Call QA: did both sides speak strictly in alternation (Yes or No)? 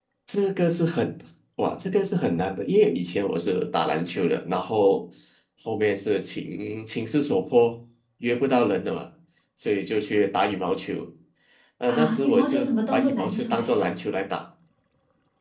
No